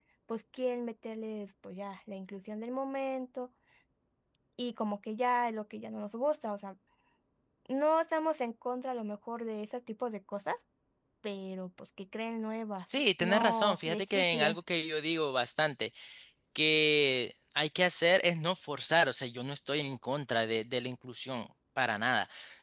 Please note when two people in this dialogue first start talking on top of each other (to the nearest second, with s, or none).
13 s